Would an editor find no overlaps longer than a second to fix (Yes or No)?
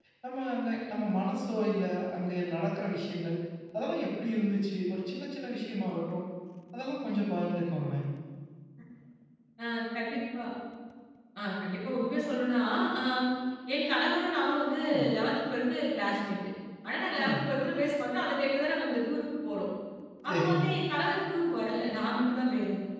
Yes